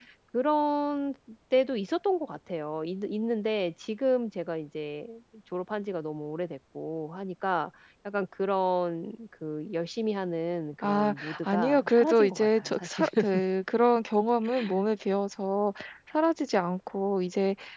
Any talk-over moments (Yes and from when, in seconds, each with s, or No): Yes, from 10.8 s